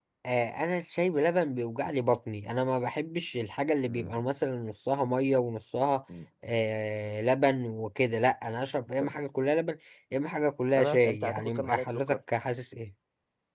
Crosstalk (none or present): present